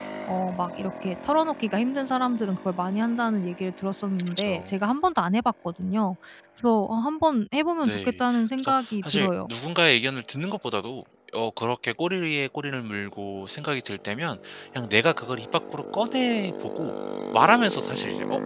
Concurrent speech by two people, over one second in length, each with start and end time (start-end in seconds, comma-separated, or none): 7.8-9.3